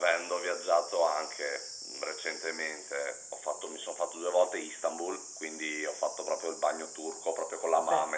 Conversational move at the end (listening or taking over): listening